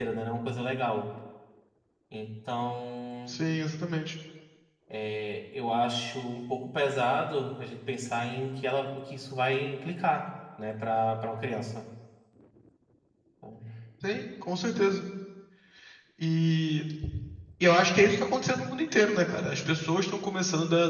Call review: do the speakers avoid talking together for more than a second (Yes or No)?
Yes